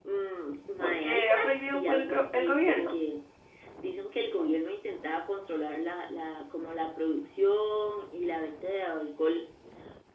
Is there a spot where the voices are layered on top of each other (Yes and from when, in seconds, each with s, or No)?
Yes, from 0.8 s